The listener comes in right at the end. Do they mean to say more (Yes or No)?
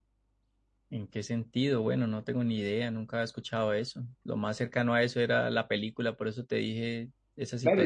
Yes